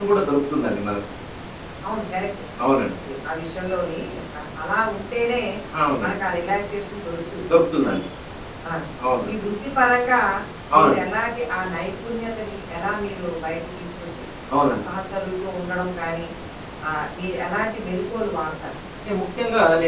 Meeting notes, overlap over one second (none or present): none